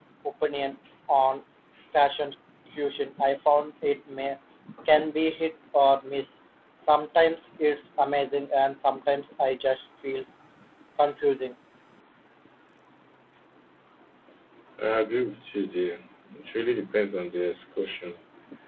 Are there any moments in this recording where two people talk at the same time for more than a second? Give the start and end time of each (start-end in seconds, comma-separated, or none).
none